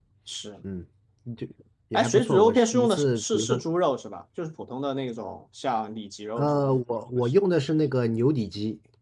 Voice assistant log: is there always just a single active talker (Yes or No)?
No